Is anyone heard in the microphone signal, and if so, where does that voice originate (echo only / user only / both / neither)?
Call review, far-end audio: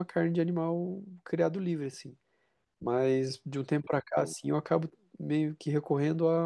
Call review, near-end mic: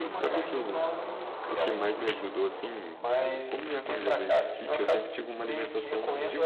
both